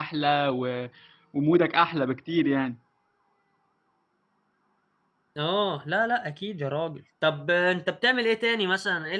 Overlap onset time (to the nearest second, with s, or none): none